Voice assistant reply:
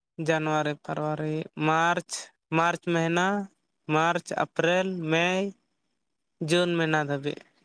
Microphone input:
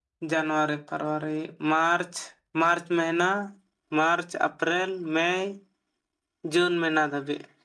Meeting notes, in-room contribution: none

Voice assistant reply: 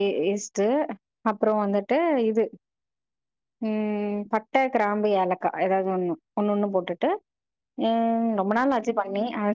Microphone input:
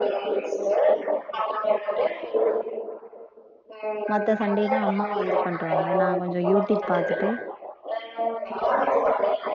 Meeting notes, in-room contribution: present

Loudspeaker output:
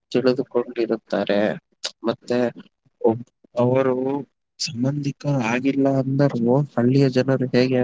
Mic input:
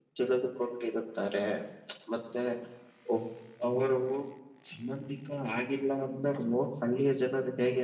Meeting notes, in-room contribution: none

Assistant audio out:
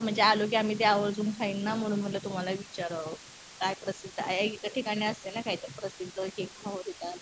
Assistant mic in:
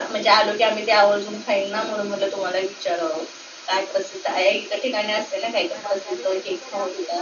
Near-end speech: present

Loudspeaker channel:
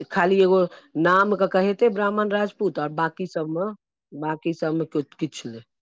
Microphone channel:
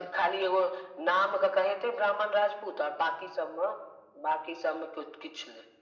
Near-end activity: none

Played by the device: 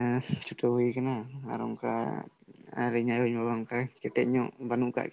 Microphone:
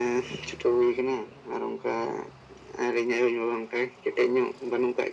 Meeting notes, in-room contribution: none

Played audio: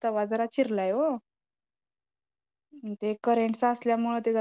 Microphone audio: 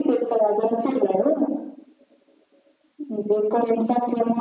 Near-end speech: none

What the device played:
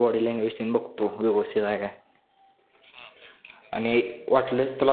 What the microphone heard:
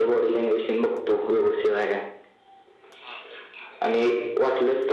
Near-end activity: none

